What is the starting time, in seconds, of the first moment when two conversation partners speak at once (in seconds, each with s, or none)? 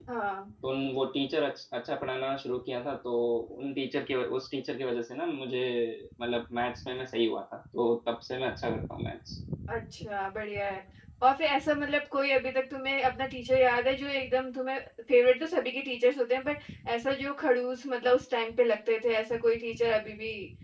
none